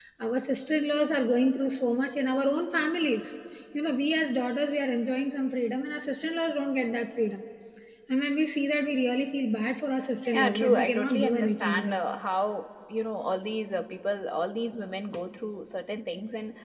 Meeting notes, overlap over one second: present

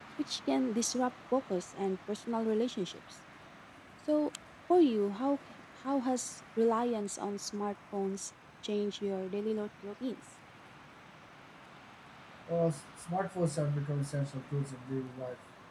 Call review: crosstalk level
none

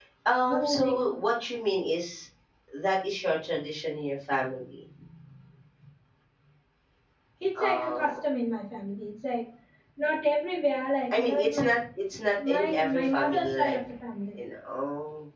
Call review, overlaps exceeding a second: present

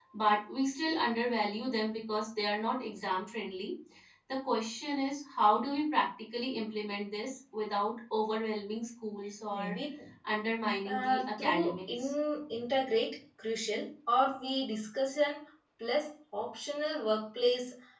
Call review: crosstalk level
present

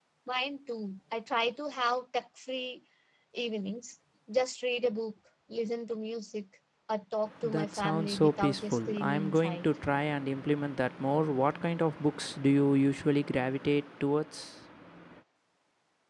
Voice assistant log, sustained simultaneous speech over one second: present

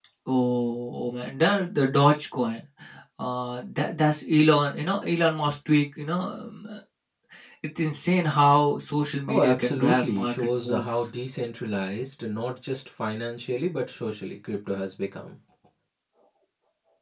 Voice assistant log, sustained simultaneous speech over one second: present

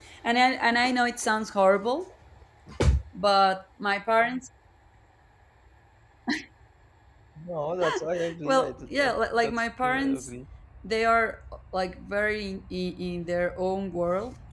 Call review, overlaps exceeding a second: present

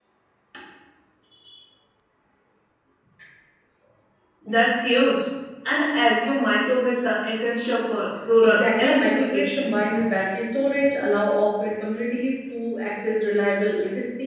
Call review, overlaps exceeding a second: present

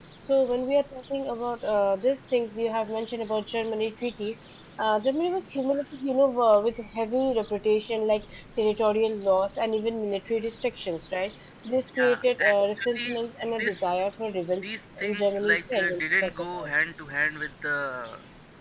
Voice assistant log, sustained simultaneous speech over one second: present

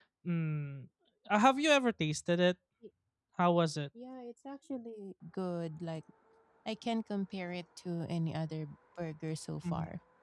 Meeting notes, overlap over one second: none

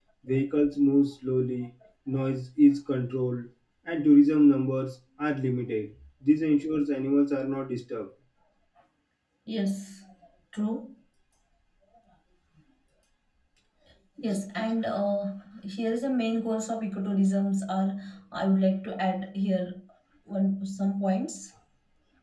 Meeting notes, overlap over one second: none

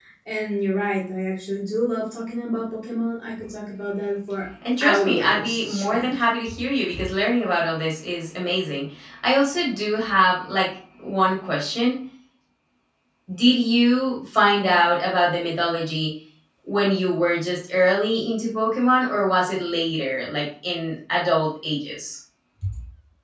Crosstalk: present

